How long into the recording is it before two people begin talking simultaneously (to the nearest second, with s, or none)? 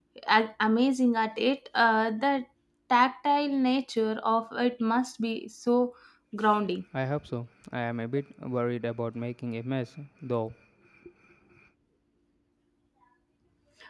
none